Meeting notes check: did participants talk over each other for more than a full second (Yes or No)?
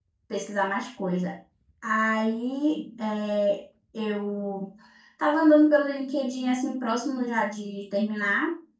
No